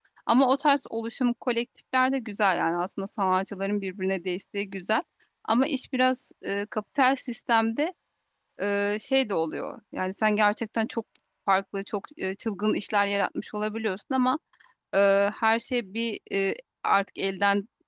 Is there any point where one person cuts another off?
No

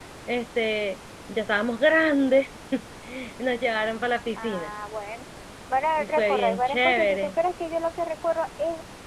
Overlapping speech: Yes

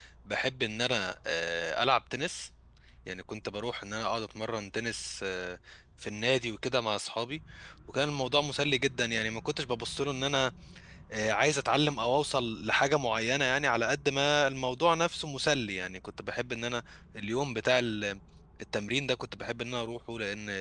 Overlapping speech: No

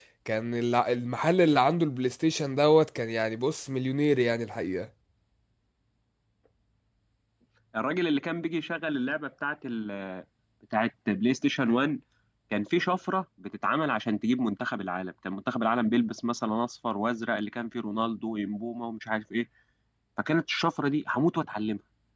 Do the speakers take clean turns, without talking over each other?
Yes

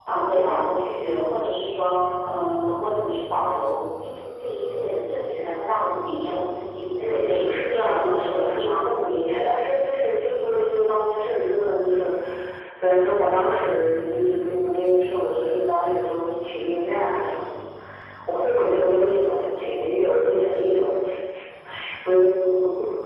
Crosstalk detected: Yes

